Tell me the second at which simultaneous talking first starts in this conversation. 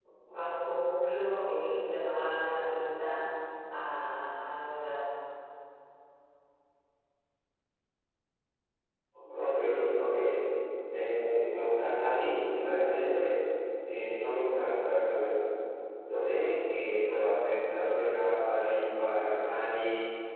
none

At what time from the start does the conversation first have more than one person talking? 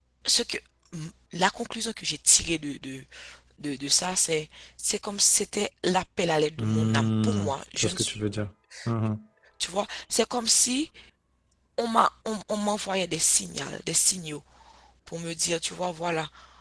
6.6 s

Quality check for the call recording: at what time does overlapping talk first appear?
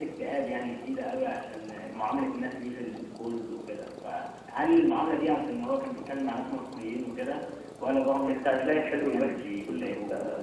8.2 s

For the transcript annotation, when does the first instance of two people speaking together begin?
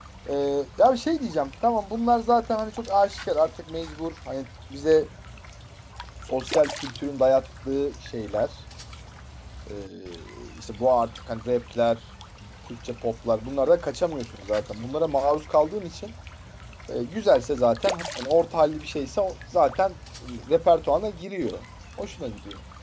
none

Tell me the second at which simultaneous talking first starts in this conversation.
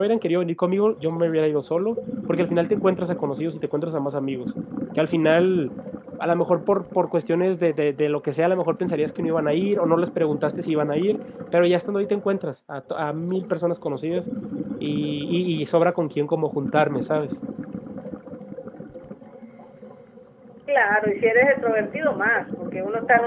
none

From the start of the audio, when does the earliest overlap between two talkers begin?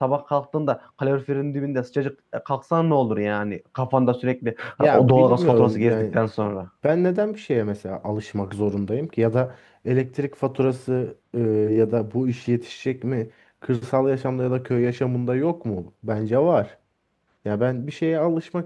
4.8 s

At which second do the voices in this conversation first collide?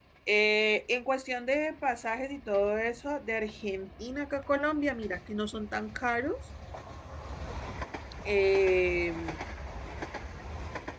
none

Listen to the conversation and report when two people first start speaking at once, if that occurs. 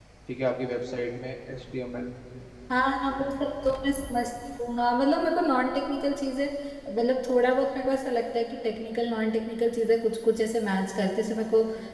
none

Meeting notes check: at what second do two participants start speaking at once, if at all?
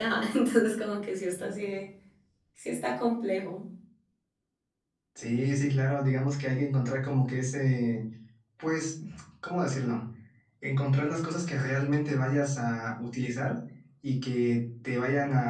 none

